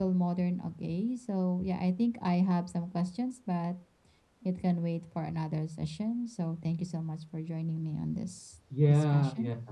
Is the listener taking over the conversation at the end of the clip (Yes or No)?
Yes